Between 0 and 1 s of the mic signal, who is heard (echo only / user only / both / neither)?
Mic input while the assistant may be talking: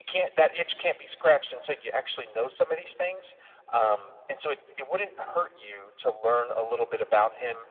echo only